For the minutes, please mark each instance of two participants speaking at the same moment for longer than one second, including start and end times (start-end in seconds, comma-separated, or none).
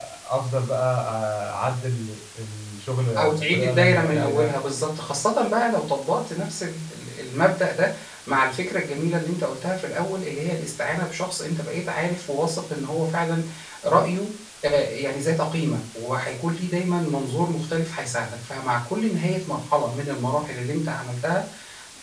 3.2-4.5